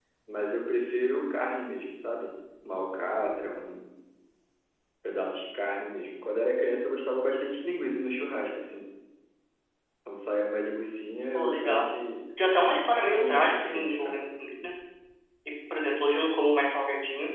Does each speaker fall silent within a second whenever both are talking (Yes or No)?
No